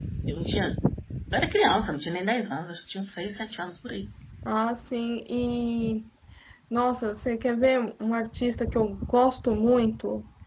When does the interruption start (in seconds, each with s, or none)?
none